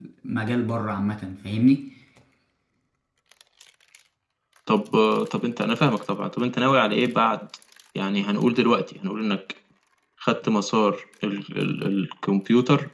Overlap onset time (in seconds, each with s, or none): none